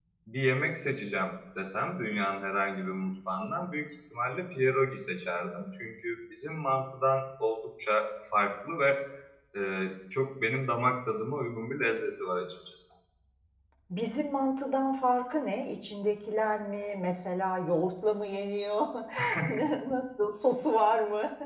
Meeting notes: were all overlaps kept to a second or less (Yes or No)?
Yes